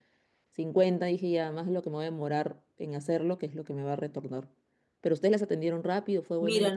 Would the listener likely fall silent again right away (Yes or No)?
No